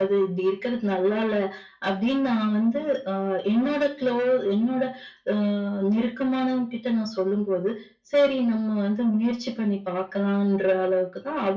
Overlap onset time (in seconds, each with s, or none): none